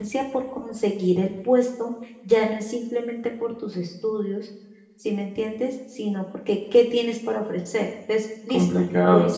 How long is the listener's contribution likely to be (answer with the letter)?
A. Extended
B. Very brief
A